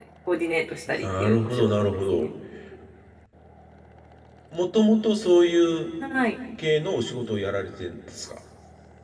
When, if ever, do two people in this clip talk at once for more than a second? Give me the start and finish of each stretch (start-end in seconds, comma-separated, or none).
1.0-2.3